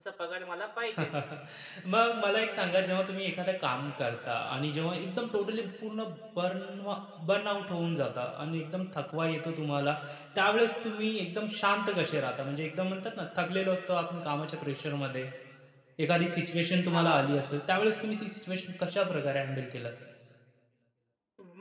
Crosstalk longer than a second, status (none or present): none